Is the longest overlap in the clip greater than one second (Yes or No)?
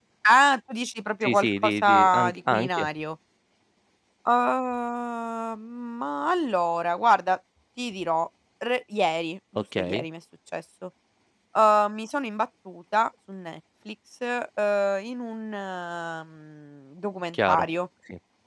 Yes